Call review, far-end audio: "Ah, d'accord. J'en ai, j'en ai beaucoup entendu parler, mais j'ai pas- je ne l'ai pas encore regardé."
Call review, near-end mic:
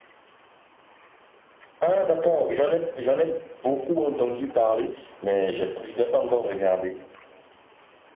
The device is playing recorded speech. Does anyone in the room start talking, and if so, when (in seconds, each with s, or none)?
none